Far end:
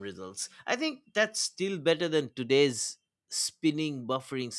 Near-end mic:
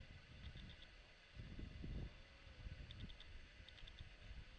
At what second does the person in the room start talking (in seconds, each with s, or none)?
none